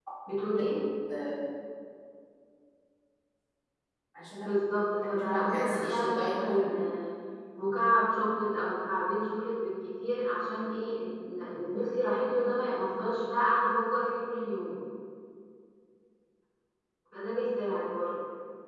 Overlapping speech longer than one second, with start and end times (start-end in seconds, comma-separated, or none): 5.2-6.7